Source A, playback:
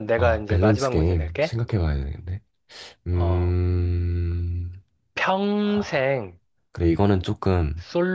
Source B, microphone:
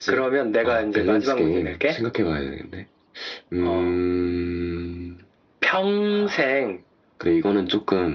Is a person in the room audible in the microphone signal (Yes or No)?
No